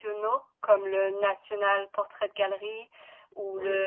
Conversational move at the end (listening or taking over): listening